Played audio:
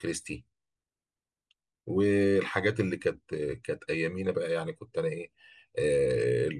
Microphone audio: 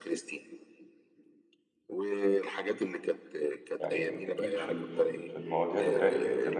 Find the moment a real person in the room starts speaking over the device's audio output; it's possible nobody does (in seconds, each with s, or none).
3.8 s